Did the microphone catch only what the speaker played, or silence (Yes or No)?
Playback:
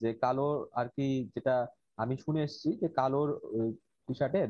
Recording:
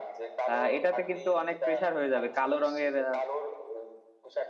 No